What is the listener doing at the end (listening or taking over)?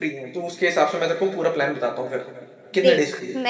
taking over